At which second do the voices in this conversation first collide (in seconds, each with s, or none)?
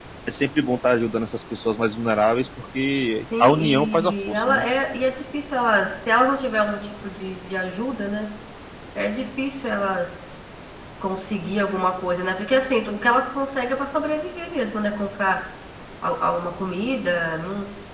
3.3 s